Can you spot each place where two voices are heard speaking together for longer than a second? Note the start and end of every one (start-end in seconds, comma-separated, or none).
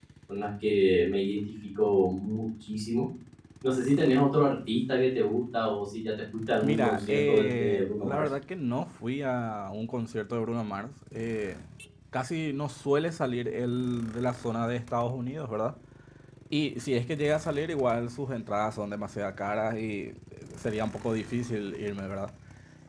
6.6-8.2